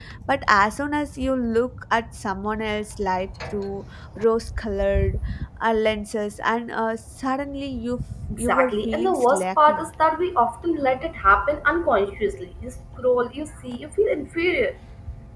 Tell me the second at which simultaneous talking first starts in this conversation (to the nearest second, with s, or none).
8 s